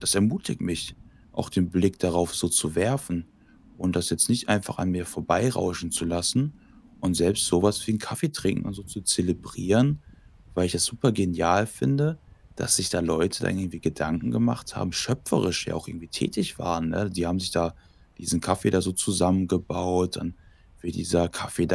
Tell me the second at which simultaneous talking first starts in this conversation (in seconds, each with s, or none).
none